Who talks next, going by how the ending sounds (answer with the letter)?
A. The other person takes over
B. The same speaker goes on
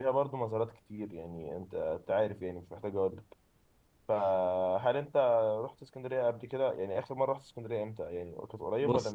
A